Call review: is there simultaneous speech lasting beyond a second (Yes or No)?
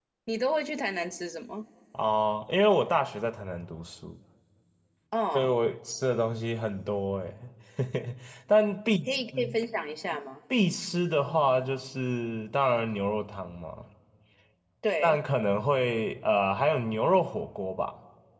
No